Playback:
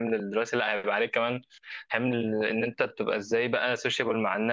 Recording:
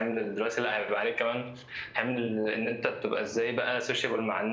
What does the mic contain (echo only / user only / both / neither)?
echo only